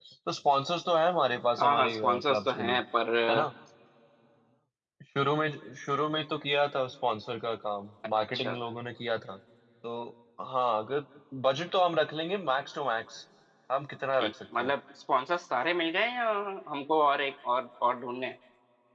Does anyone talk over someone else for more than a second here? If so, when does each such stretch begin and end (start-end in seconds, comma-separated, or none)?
1.6-2.8